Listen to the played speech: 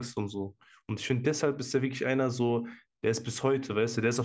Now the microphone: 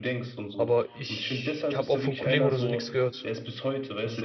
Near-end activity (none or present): present